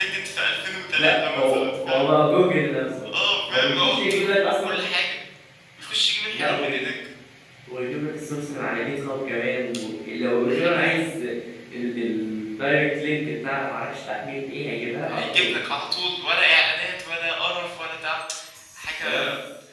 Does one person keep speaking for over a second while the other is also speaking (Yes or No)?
Yes